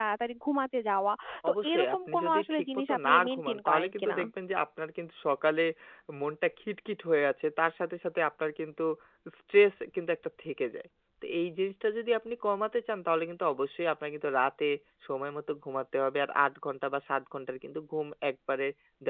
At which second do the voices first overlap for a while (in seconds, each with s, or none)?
1.4 s